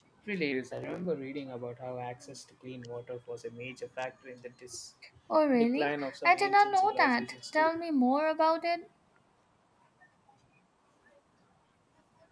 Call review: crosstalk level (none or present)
present